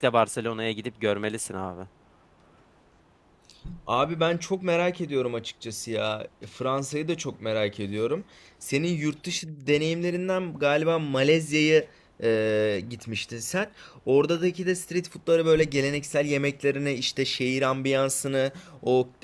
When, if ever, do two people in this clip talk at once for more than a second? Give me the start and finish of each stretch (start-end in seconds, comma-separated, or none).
none